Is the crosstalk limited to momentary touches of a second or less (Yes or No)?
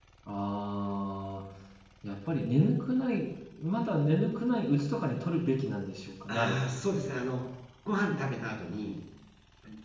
Yes